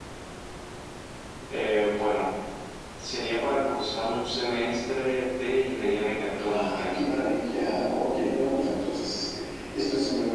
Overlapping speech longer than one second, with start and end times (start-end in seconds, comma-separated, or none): none